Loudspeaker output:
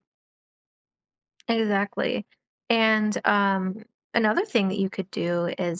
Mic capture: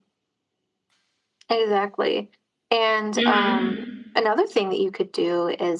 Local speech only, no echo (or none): Mhm.